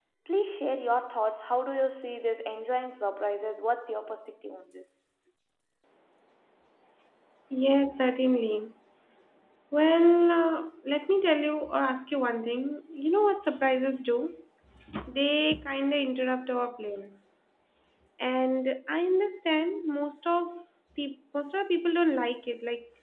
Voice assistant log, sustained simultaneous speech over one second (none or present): none